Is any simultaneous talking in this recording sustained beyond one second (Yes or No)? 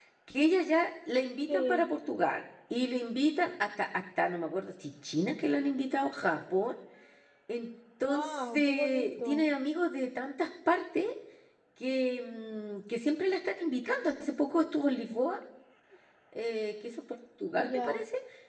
Yes